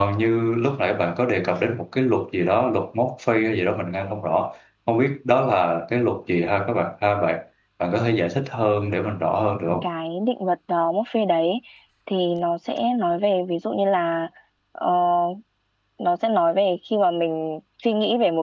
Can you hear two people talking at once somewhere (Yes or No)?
No